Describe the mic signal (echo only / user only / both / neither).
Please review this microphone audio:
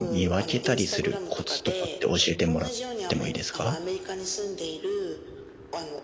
both